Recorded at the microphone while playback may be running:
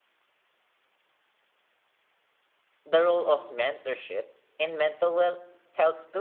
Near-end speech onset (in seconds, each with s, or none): 2.8 s